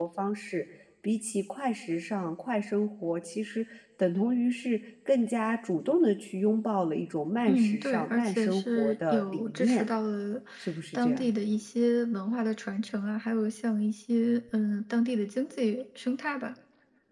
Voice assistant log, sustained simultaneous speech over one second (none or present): present